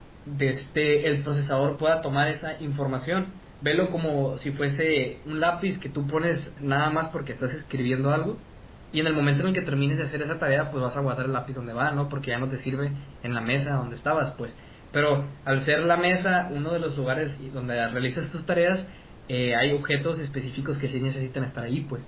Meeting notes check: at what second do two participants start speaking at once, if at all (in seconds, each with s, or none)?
none